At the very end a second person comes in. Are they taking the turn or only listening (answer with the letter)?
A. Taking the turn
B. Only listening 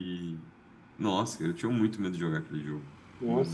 A